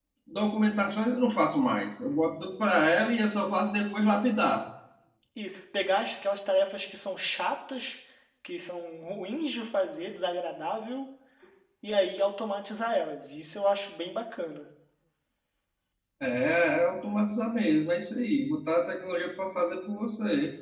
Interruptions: none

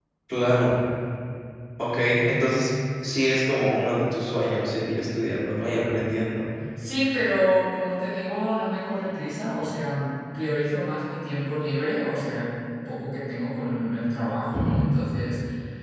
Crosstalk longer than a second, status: none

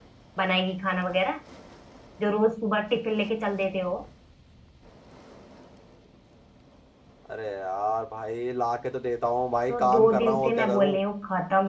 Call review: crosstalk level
present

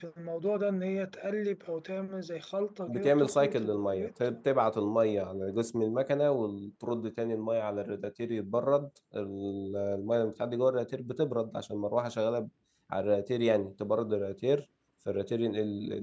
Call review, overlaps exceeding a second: present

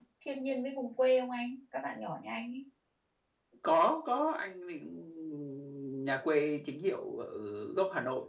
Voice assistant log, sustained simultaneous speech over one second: none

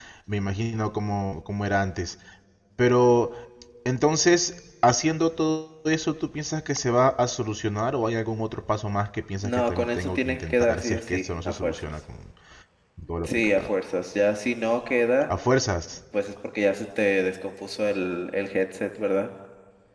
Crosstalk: present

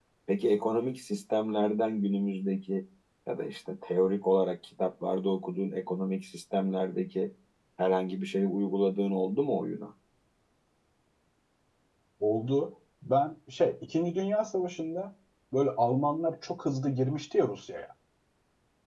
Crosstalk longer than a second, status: none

